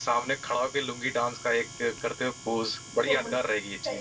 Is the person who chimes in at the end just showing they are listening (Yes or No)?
No